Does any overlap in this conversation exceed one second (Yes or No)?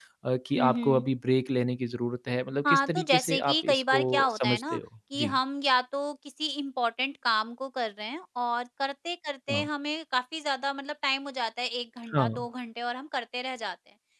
Yes